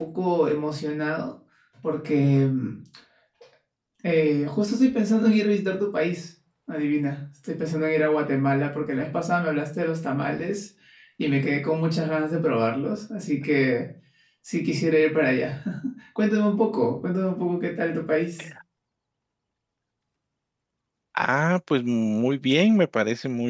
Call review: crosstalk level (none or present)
none